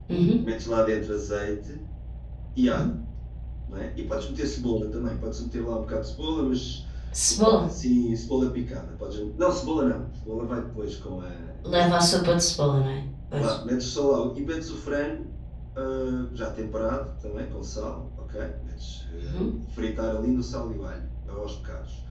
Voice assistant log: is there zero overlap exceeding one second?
Yes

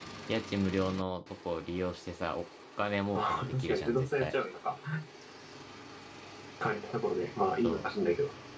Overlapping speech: Yes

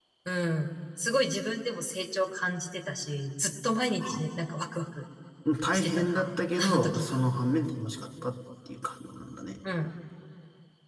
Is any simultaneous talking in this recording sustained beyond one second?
Yes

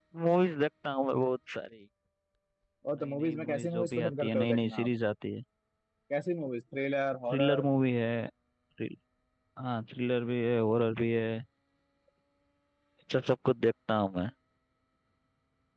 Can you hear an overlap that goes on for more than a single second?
Yes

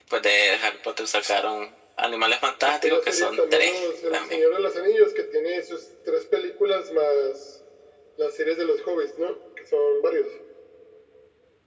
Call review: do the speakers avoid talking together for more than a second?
No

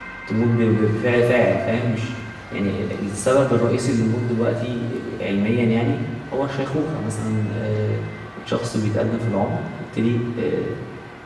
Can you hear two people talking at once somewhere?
No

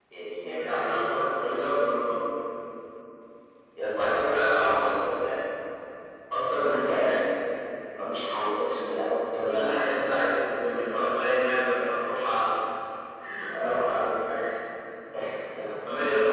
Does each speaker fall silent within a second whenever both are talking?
No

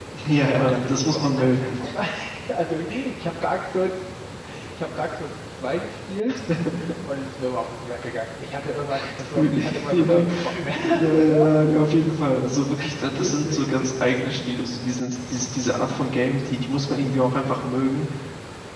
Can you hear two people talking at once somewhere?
Yes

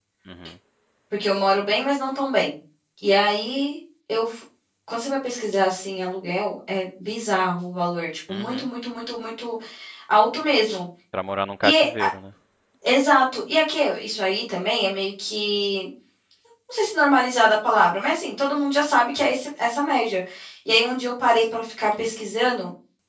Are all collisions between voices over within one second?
Yes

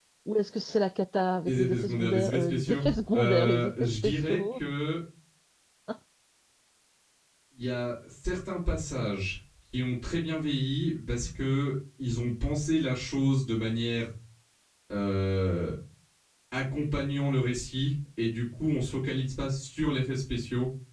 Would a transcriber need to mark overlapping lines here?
Yes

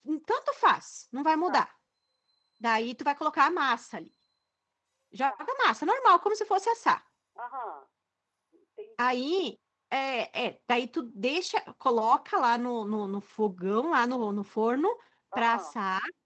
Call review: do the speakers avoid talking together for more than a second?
Yes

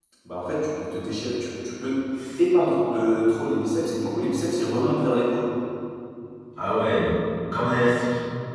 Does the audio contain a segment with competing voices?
No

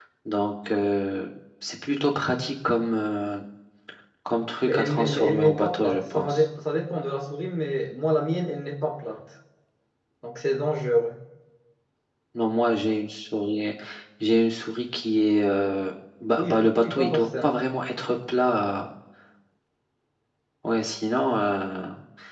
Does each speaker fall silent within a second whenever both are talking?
No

